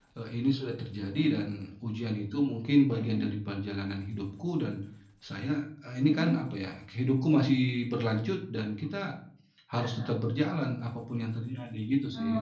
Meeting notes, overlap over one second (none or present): none